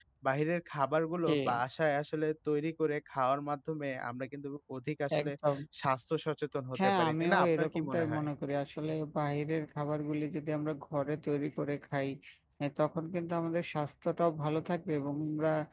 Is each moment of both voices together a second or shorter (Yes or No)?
No